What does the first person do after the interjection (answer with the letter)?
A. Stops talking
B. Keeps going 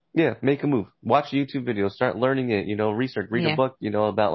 B